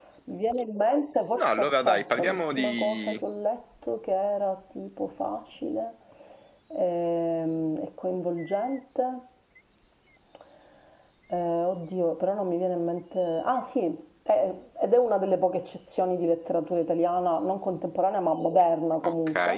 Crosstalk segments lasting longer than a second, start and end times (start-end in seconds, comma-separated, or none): 1.4-3.2